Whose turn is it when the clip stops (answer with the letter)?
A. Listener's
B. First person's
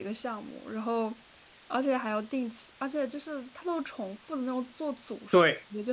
A